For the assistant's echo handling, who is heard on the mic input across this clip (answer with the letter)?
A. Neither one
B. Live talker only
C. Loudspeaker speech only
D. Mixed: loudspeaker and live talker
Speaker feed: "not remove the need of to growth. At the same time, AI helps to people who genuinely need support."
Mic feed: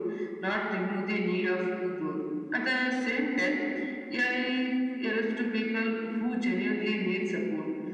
C